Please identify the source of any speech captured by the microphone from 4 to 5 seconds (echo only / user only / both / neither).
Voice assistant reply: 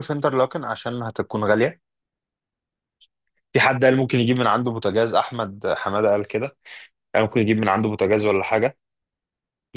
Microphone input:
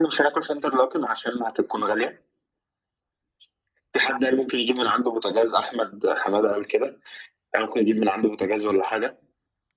echo only